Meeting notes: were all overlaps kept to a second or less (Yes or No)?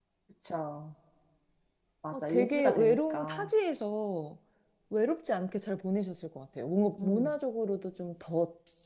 No